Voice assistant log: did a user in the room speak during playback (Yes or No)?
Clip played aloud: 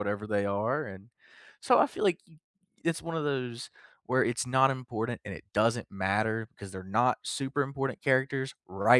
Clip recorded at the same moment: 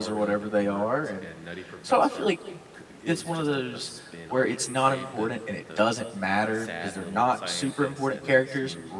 Yes